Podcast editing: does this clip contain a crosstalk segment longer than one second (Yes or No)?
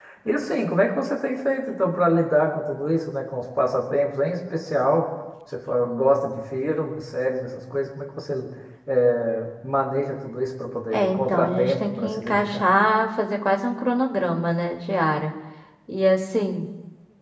Yes